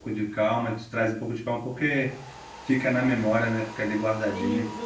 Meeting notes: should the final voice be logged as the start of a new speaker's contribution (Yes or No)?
Yes